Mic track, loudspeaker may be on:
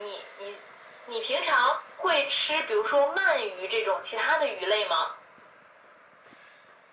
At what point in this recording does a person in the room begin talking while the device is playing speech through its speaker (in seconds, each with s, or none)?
none